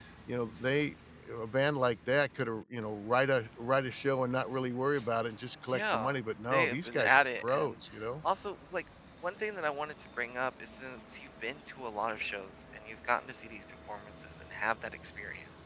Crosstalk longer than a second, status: present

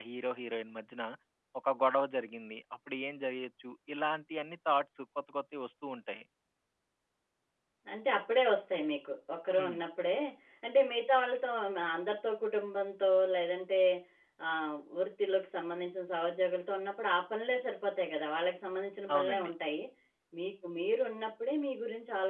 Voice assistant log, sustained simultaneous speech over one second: none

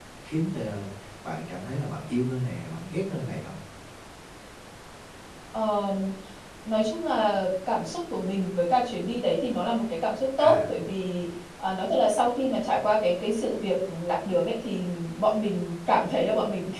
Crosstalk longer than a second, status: none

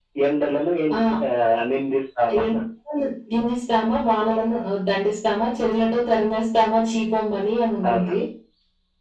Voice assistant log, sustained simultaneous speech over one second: none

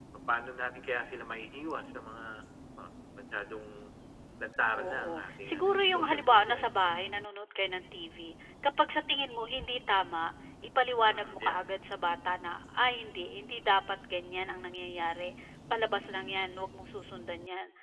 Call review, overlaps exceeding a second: present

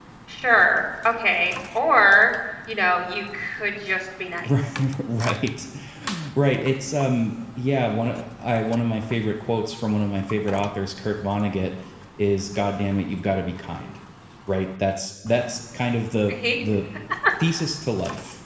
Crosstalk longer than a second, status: none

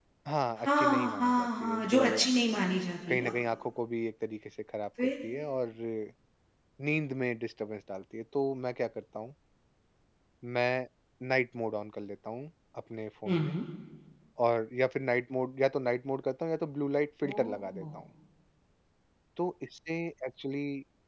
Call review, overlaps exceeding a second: present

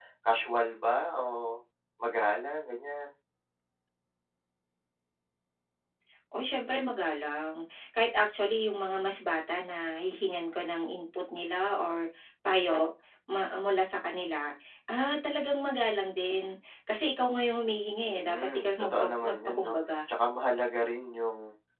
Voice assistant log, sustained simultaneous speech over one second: present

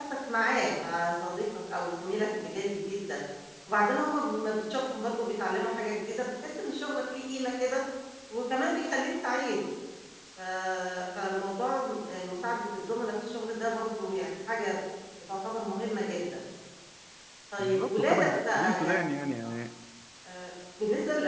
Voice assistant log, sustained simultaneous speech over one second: present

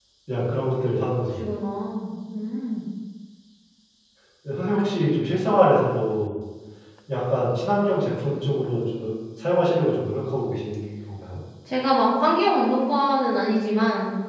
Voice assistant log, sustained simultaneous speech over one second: none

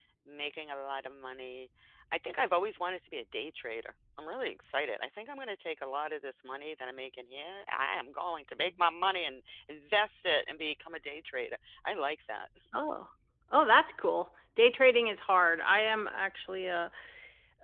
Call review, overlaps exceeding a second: none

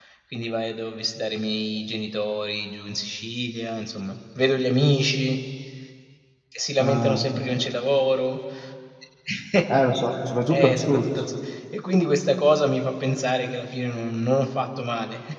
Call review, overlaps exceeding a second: none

